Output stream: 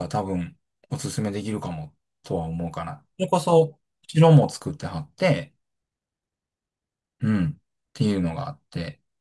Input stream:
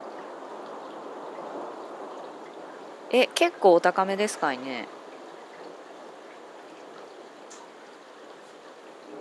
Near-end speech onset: 3.1 s

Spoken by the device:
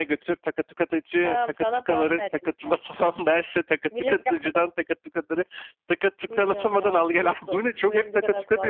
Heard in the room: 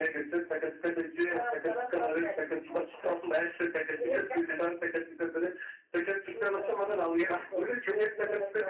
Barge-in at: none

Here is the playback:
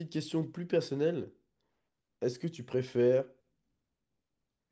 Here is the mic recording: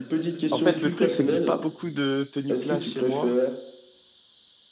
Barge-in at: 0.5 s

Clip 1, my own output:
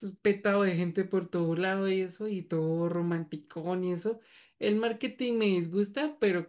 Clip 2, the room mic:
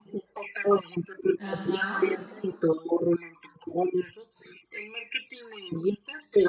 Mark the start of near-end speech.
1.4 s

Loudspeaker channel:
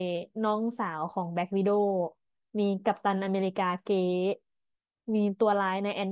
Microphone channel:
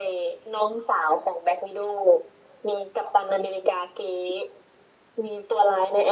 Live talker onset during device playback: none

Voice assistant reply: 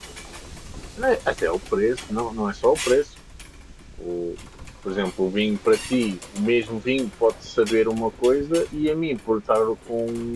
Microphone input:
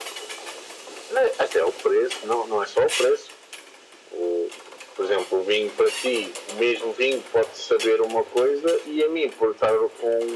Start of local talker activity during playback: none

